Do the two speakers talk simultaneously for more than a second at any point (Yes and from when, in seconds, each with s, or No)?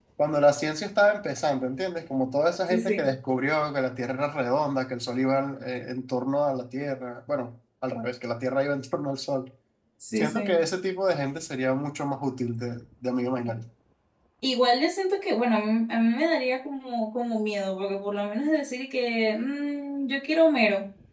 No